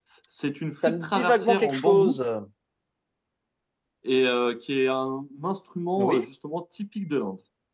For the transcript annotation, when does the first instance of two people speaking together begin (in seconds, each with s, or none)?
0.9 s